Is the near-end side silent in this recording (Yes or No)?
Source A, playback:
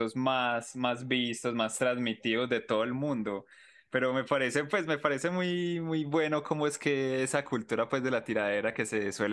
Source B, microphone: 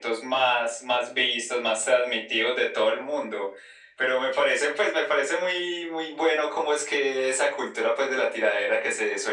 Yes